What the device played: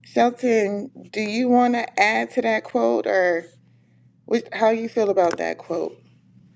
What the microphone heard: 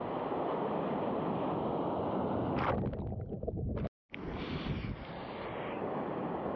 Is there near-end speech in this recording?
No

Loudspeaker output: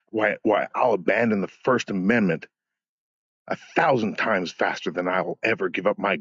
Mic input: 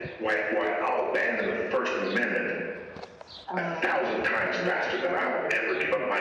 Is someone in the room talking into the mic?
Yes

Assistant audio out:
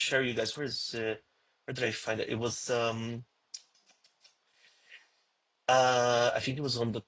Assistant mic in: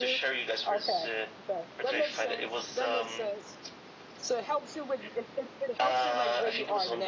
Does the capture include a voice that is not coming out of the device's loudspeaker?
Yes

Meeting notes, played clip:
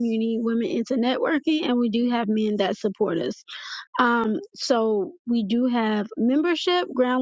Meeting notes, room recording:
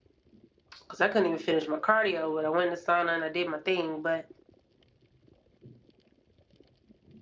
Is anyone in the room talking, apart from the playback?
Yes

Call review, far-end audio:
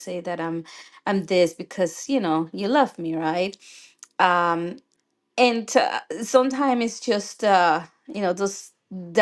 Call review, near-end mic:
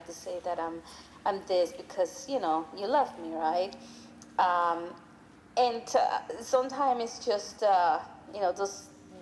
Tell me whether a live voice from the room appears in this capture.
No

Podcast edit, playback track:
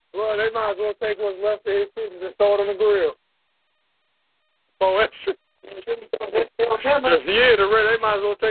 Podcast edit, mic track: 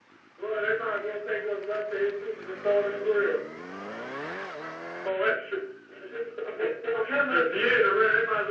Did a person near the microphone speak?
No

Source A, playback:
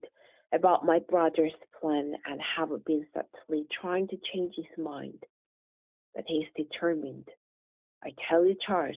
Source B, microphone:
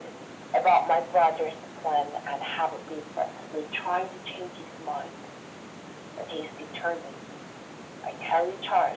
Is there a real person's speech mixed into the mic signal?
No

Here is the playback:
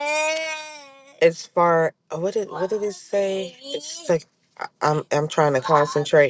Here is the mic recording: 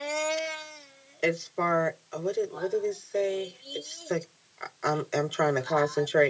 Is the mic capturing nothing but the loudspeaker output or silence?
Yes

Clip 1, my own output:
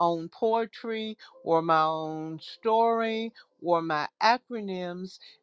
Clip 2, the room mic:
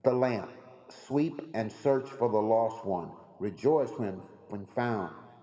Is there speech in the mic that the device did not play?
Yes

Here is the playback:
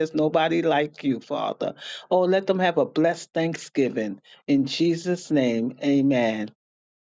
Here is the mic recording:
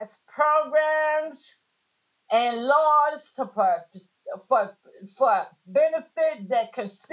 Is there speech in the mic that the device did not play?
Yes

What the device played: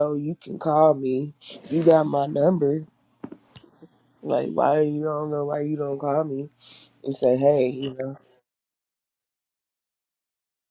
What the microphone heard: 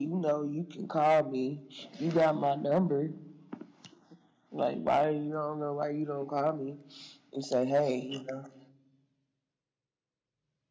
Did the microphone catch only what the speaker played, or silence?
Yes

